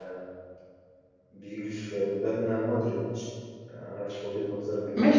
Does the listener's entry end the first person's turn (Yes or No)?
Yes